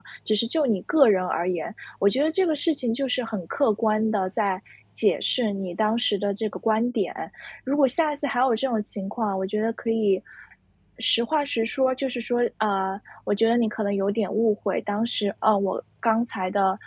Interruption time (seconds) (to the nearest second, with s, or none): none